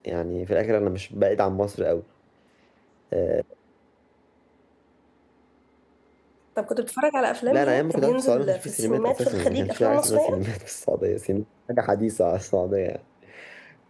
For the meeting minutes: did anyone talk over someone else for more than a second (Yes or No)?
Yes